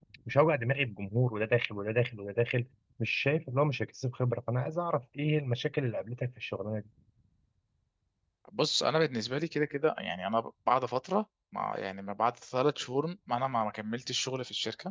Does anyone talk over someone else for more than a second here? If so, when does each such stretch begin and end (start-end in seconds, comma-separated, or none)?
none